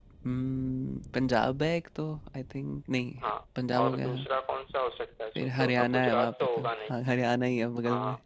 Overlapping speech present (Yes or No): Yes